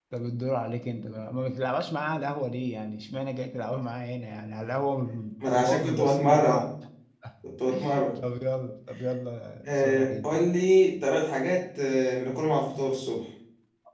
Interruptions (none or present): present